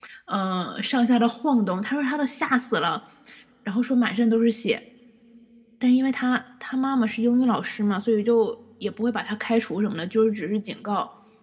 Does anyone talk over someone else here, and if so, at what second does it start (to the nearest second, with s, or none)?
none